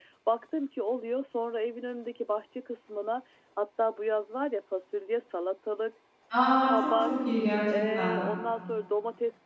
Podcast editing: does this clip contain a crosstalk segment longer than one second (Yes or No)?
No